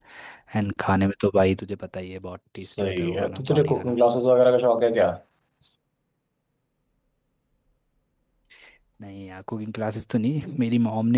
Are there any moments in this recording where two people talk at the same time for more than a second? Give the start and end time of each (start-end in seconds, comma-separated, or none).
2.6-4.0